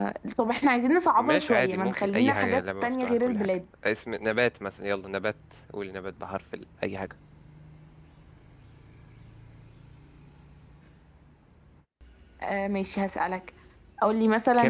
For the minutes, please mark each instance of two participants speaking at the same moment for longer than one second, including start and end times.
1.2-3.6

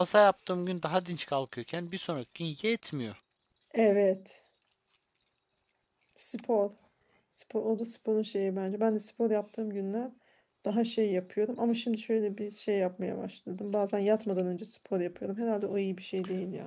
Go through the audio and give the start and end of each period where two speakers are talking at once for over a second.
none

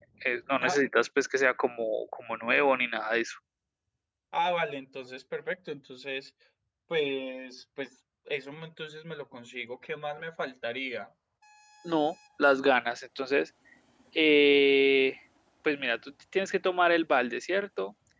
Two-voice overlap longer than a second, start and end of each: none

